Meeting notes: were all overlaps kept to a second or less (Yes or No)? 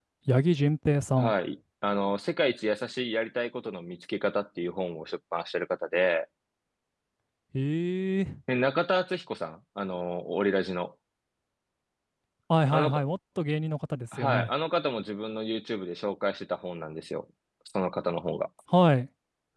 Yes